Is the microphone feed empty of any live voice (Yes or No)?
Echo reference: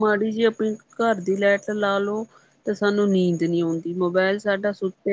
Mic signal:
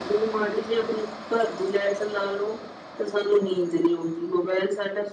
Yes